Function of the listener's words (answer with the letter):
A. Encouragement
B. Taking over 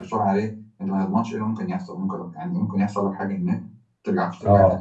A